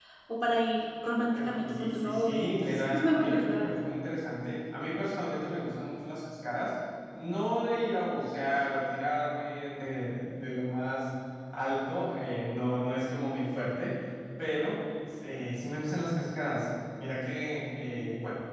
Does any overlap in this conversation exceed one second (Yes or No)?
Yes